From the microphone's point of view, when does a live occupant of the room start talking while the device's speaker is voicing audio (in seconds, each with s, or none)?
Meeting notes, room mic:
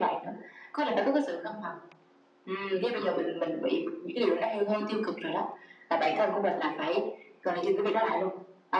none